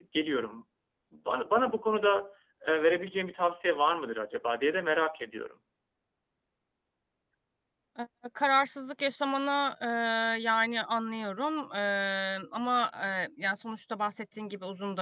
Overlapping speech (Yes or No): No